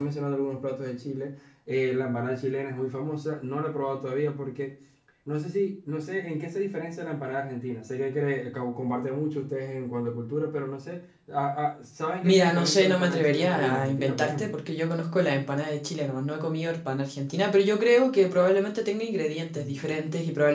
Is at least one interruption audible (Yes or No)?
Yes